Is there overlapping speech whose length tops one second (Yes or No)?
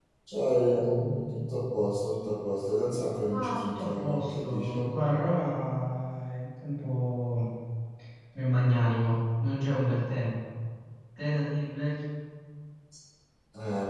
Yes